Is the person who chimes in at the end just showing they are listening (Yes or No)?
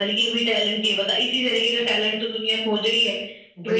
Yes